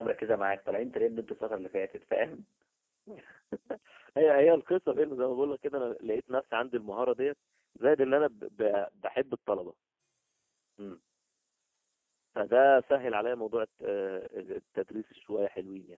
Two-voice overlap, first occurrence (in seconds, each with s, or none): none